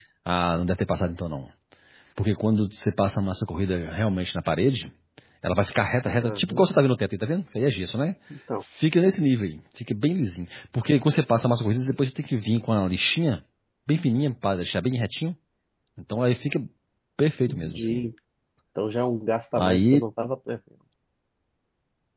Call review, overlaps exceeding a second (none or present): none